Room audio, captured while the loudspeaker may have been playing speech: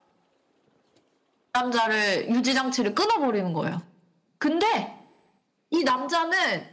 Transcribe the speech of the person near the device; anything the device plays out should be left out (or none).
none